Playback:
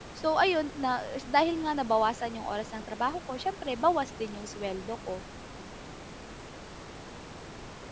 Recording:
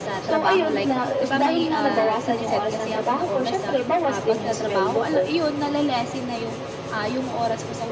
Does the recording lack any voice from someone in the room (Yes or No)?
No